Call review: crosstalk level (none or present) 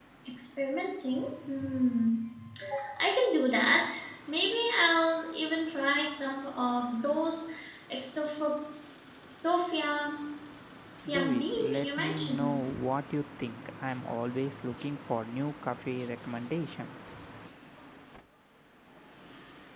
present